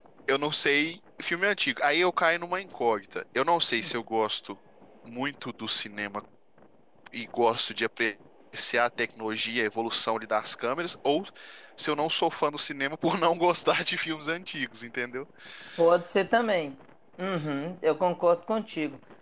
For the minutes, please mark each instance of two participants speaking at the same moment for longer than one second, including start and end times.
none

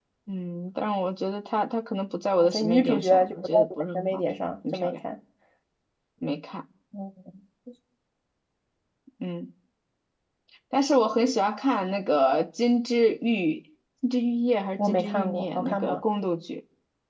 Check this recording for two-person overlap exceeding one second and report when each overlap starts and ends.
2.4-4.2, 14.8-16.0

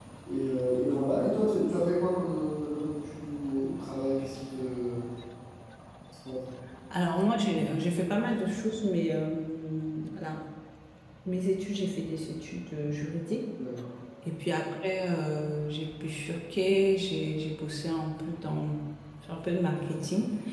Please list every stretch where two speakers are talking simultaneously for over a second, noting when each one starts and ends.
none

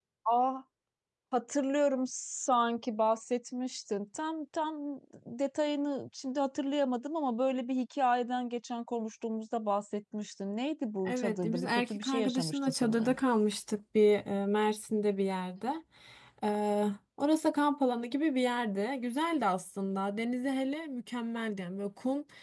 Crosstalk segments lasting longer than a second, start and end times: 11.1-13.2

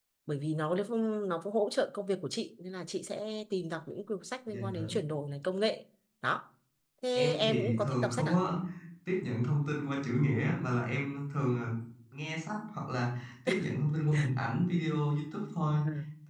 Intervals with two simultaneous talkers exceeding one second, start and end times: 7.2-8.4

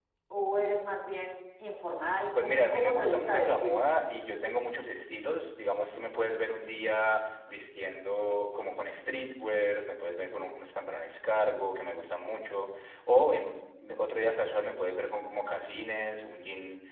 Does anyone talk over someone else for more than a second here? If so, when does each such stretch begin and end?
2.4-3.8

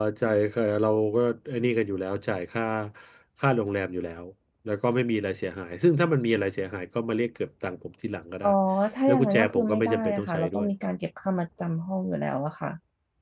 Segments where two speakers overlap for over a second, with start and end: 9.1-10.7

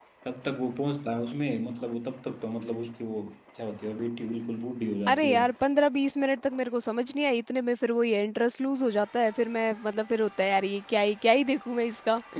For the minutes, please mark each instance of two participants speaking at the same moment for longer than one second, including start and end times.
none

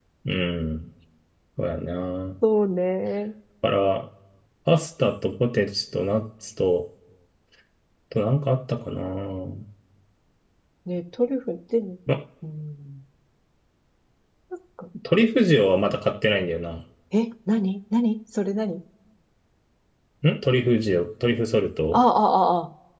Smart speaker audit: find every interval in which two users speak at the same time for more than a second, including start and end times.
none

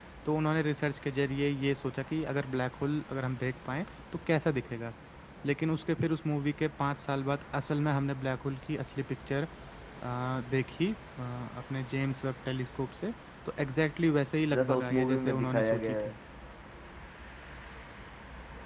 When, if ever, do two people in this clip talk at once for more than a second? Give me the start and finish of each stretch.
14.6-16.1

